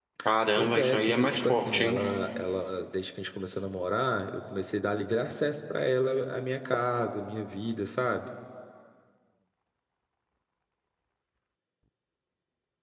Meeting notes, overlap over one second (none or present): present